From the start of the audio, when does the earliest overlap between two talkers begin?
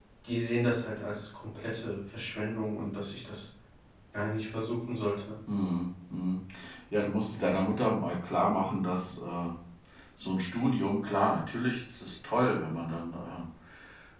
none

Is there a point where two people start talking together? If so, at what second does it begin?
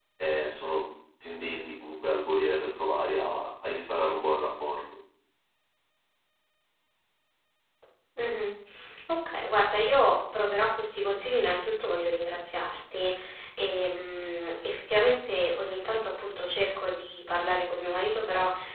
none

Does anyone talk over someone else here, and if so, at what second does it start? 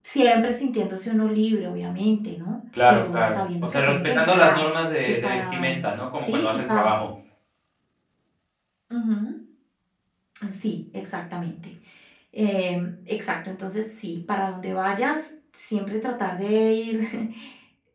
2.7 s

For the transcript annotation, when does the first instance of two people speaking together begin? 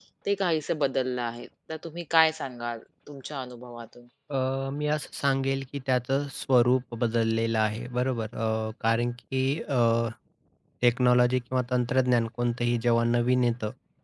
none

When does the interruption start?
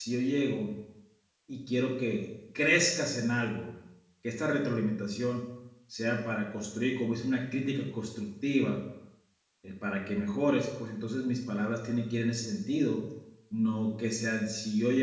none

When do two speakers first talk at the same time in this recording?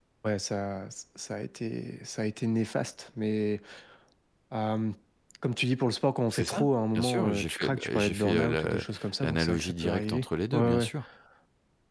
6.3 s

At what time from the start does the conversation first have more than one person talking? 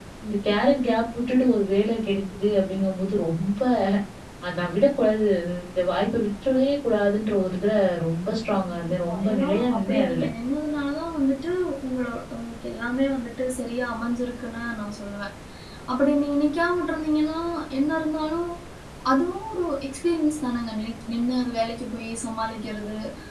8.7 s

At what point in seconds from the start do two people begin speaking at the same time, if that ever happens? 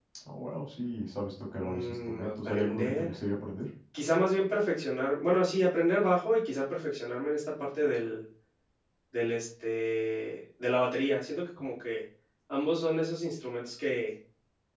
1.6 s

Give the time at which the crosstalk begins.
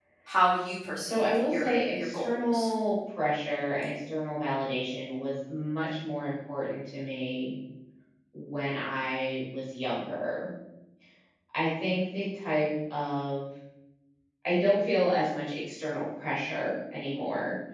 1.1 s

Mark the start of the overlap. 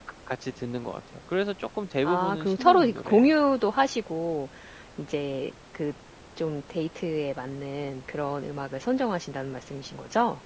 2.0 s

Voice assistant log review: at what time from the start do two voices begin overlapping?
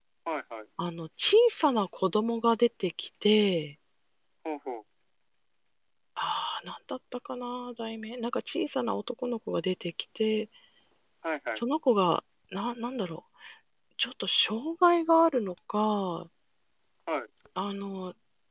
none

